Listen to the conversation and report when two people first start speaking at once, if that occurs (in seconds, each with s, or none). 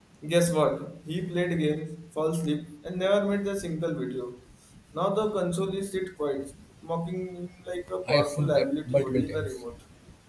8.1 s